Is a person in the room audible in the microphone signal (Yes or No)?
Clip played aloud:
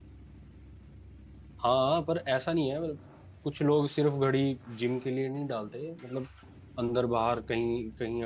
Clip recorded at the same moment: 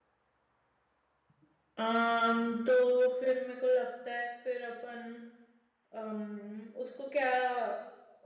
Yes